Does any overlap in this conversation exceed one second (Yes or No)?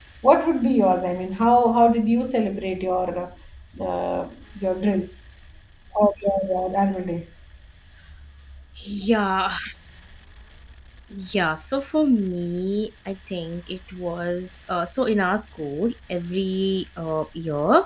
No